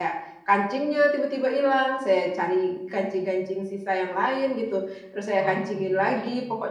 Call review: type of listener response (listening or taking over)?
listening